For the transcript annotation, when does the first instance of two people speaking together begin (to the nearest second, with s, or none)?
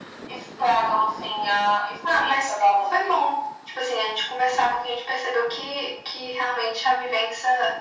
2 s